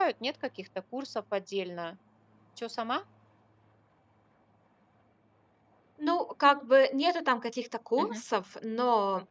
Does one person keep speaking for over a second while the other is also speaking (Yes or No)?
No